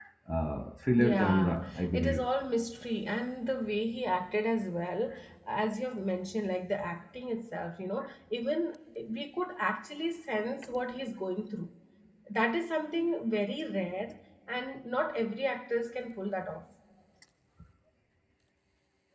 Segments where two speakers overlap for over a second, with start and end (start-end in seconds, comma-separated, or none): 1.0-2.2